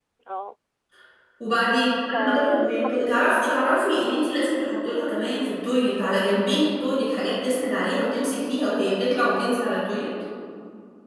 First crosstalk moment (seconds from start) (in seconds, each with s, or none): 2.1 s